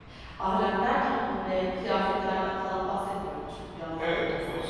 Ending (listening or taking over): taking over